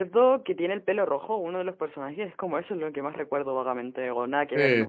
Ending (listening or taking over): taking over